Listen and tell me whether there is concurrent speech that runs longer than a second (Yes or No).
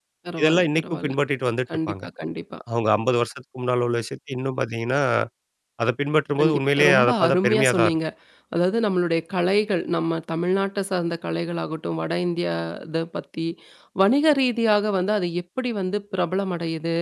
Yes